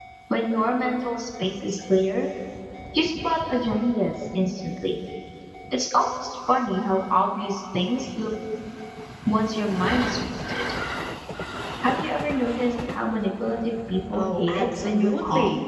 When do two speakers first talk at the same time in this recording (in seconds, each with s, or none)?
14.1 s